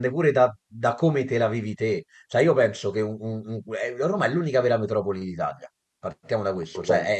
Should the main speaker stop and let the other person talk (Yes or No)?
No